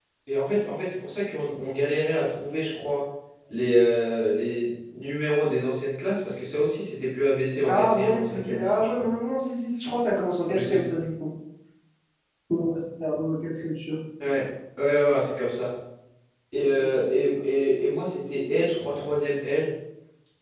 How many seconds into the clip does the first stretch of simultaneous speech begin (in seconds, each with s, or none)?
7.6 s